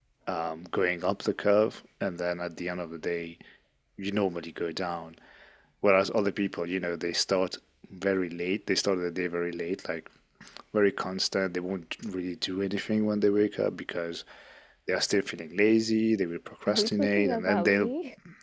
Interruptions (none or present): present